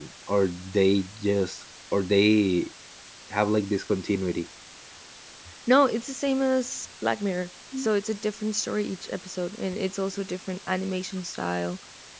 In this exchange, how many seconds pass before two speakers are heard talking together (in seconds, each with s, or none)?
none